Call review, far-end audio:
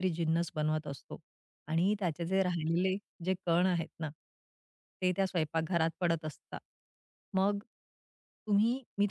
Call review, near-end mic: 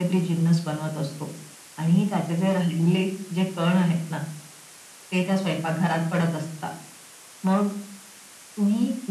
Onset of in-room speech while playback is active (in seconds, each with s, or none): none